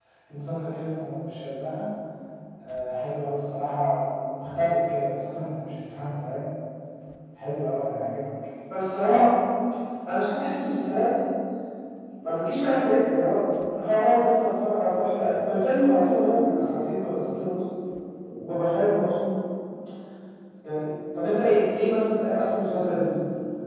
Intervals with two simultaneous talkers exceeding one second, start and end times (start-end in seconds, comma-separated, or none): none